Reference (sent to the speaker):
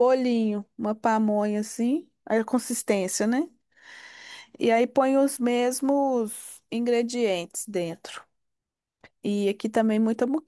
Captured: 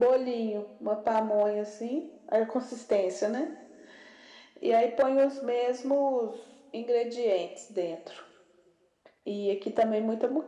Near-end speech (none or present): none